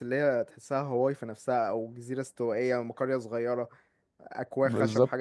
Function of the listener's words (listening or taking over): listening